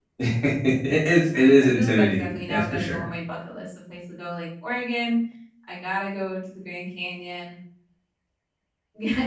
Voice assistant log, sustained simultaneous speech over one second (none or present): present